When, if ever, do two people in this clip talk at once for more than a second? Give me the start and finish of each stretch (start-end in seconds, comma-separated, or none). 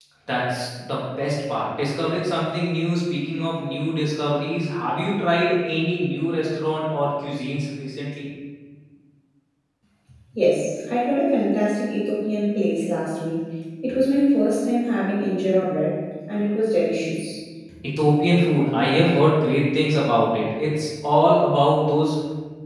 none